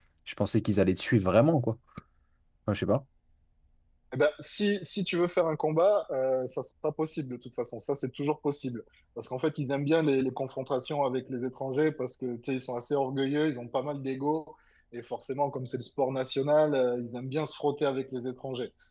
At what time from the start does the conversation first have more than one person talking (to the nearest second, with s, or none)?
none